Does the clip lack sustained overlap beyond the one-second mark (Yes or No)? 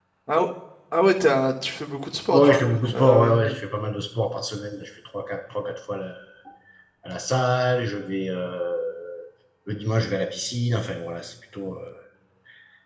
No